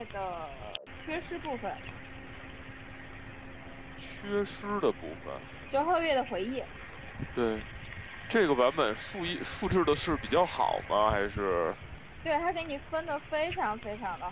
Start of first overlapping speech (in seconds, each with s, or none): none